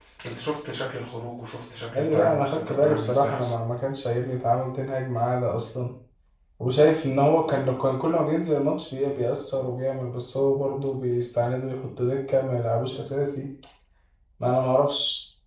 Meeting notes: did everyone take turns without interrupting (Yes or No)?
No